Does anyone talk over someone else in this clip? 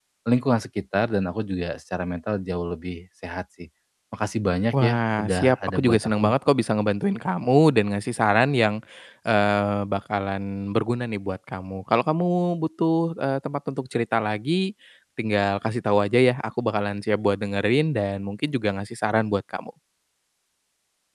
Yes, from 4.7 s

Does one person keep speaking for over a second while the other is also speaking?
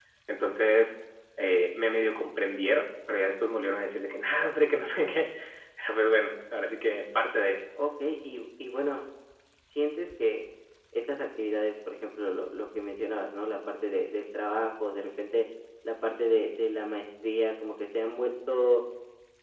No

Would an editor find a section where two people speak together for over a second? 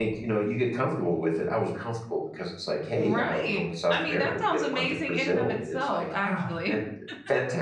Yes, from 3.0 s

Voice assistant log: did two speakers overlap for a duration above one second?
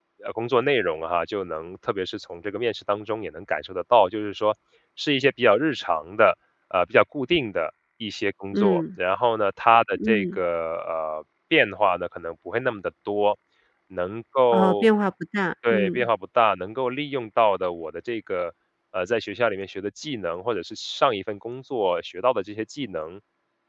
No

